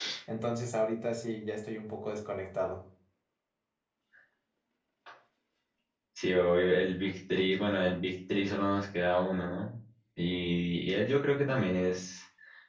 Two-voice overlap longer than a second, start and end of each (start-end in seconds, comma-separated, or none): none